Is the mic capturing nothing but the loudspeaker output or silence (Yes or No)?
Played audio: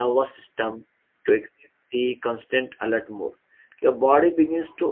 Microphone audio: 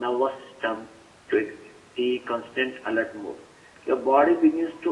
Yes